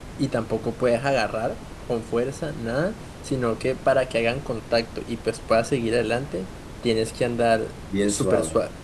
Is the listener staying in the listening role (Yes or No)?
Yes